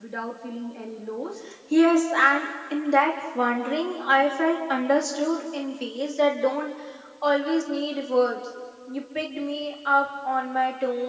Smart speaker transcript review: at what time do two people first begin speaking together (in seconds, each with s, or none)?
none